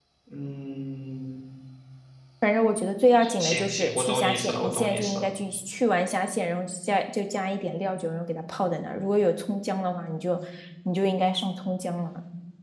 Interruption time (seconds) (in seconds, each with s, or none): 3.2 s